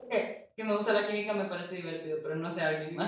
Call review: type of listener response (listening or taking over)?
taking over